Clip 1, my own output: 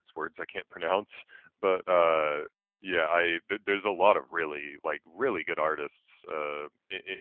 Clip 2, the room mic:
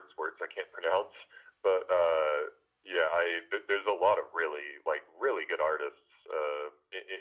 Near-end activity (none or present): none